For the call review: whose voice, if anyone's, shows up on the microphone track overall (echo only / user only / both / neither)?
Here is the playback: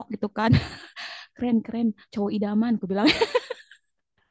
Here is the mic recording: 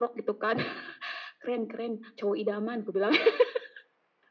echo only